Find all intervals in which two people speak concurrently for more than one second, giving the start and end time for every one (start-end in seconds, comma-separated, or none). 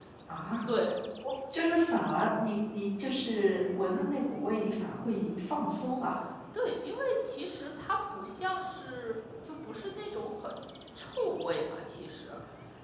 none